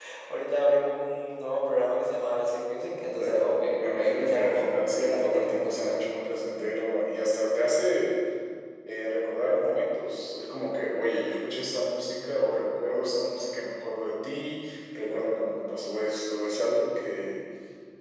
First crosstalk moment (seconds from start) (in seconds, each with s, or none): 3.2 s